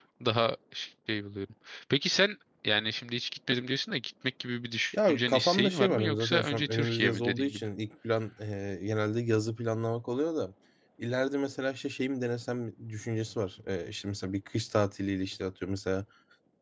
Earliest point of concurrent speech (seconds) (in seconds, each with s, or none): 4.9 s